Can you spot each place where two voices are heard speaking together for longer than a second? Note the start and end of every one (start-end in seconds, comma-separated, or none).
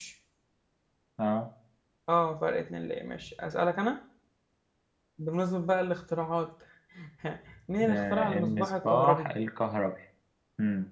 7.9-9.2